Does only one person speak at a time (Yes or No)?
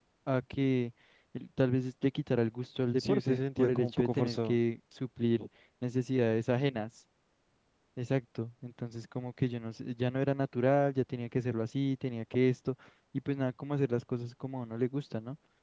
No